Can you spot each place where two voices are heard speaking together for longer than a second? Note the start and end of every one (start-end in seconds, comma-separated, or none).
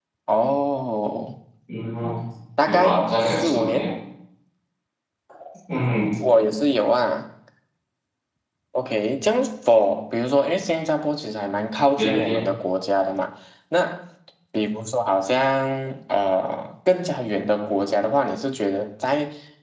2.7-3.9